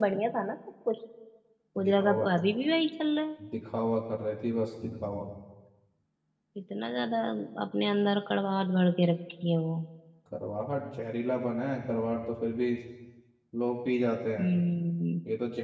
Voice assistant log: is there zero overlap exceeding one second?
Yes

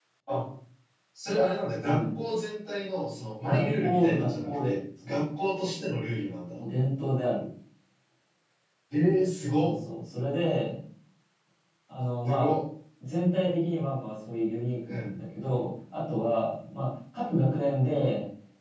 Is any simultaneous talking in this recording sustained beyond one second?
Yes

